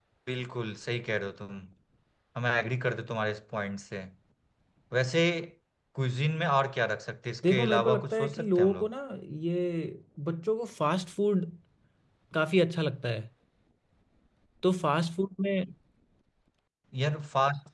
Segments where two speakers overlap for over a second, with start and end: 7.5-8.9

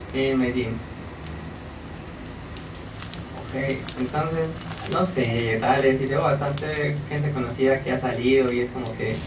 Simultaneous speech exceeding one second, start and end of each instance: none

